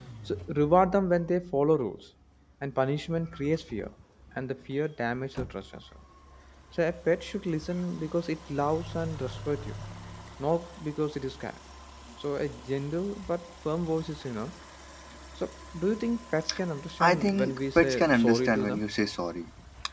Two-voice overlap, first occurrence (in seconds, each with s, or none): 17.0 s